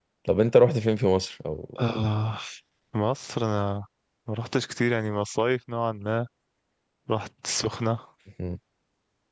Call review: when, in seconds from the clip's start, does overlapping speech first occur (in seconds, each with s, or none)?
none